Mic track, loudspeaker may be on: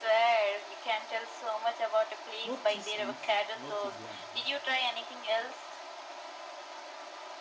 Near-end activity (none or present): present